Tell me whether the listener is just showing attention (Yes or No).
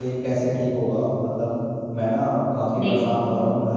Yes